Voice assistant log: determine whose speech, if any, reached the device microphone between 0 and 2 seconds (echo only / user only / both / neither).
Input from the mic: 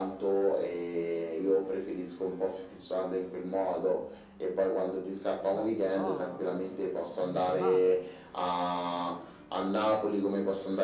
echo only